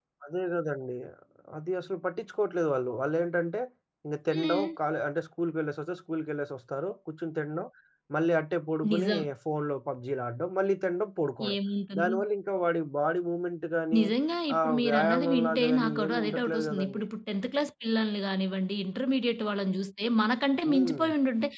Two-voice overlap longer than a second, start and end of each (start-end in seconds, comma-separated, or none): 14.6-17.0